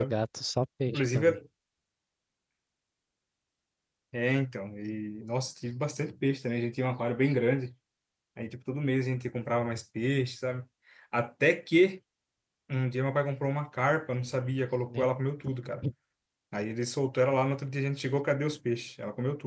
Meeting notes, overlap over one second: none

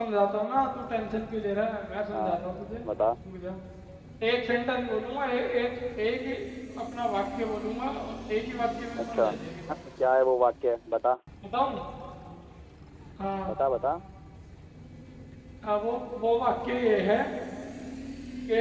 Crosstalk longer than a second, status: none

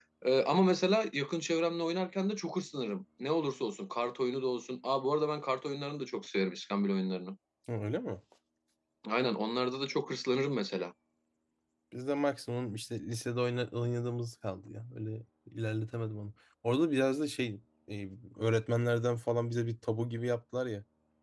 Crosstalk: none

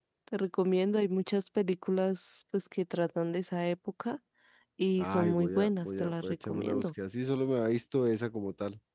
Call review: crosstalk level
present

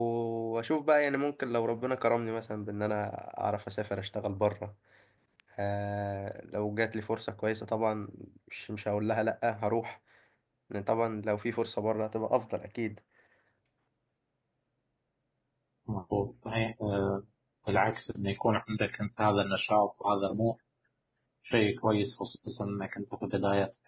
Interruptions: none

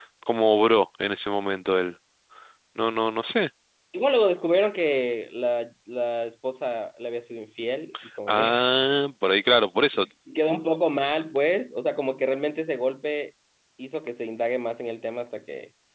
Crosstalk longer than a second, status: none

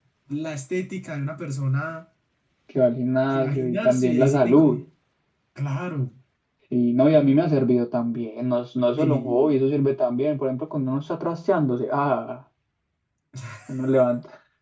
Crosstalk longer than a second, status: present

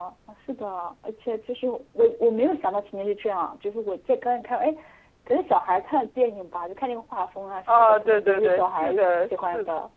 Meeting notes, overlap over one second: present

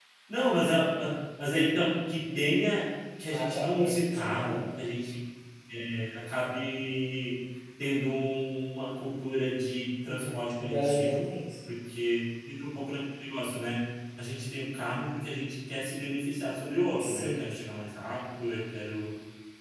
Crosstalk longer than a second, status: present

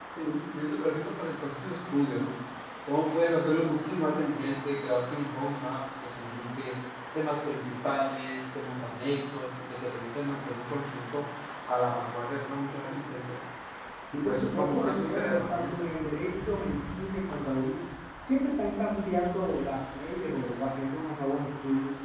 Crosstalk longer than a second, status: present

